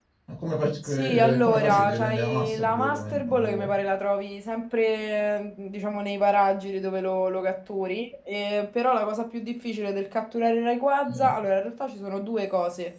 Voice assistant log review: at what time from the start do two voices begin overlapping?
0.8 s

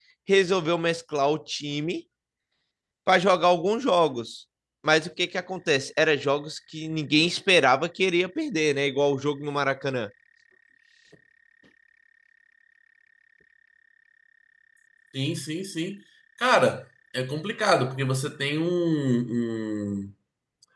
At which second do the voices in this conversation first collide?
none

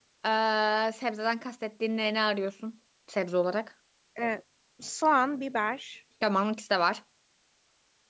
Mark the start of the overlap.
none

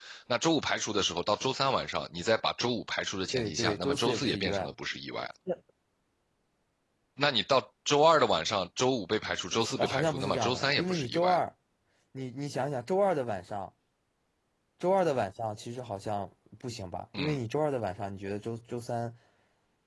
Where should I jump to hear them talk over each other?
3.3 s

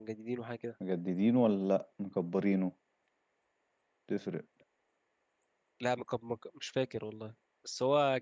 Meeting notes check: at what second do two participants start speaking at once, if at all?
none

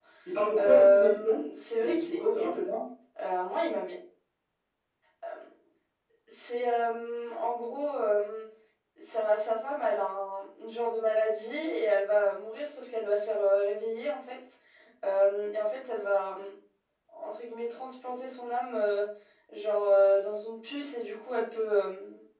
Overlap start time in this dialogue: 0.6 s

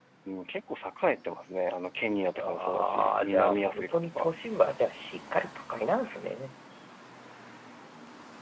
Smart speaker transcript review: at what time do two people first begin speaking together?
2.4 s

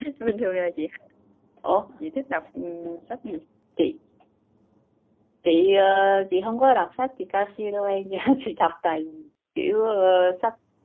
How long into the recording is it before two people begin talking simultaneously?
none

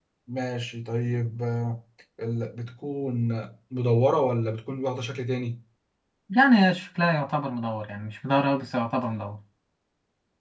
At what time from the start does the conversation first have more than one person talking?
none

